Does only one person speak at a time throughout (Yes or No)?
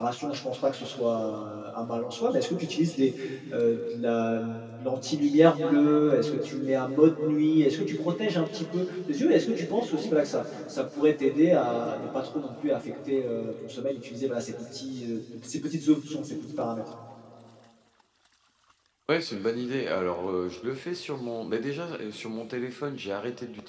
Yes